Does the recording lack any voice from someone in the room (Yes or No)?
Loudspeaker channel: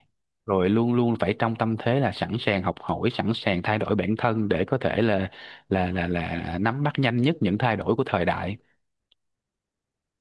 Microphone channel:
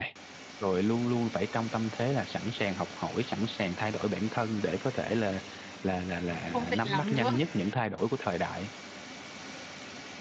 No